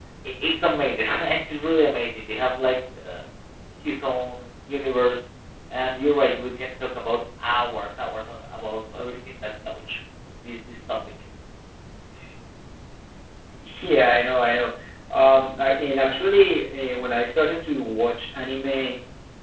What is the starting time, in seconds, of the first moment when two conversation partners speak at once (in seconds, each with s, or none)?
none